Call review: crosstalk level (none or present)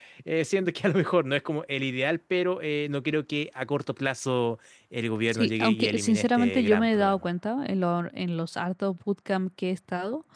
present